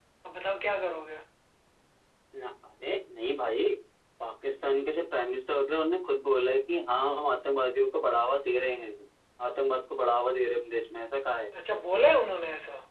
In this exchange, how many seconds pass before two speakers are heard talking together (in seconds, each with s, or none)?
none